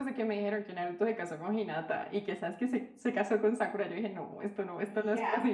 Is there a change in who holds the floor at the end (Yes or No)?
Yes